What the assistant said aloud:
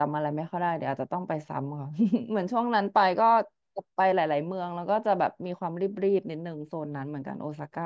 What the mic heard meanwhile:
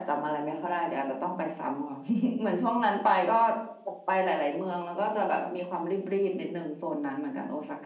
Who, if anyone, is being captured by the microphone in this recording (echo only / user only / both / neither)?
echo only